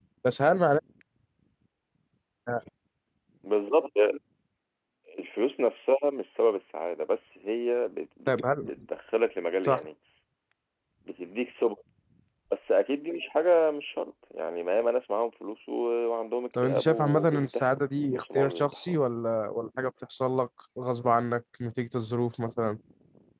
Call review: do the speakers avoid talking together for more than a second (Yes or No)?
No